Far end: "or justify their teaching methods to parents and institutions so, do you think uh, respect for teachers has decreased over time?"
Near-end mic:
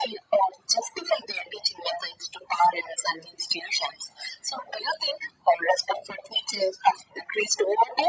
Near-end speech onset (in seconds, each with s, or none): none